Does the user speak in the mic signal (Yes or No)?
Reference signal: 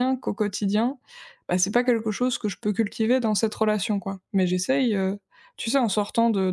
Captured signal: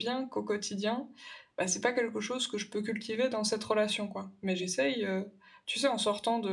No